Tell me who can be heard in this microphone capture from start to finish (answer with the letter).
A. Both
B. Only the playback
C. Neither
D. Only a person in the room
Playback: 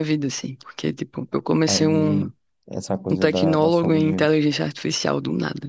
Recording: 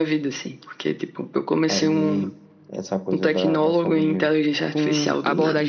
A